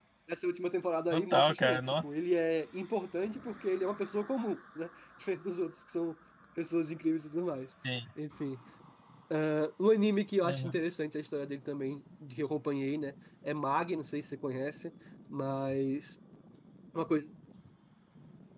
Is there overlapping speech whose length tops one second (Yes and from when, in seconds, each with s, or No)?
Yes, from 1.1 s